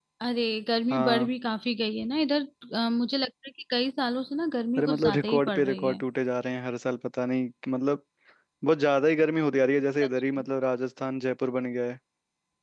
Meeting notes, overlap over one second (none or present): present